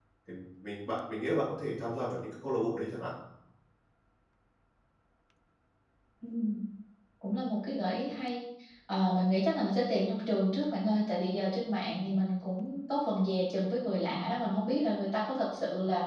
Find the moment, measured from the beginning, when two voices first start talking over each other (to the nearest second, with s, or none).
none